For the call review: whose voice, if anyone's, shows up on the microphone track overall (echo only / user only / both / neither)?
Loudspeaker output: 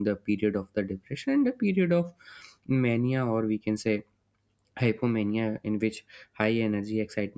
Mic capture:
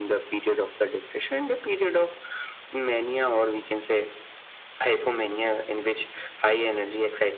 echo only